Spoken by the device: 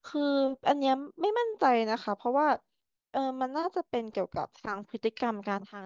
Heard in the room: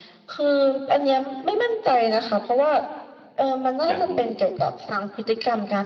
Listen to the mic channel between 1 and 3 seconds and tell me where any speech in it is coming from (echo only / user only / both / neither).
echo only